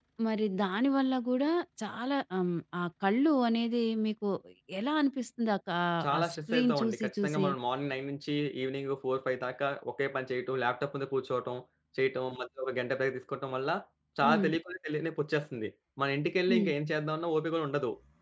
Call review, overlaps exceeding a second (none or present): present